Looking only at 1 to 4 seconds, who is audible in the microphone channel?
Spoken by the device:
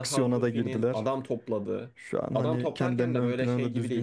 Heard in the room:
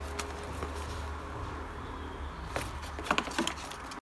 neither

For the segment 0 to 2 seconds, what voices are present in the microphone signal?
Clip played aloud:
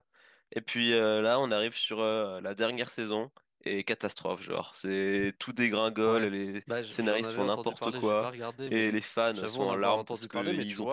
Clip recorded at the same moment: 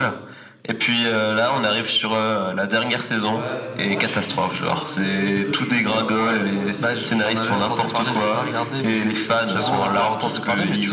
echo only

